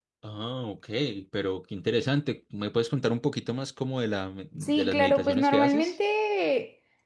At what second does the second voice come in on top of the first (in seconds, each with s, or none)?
4.6 s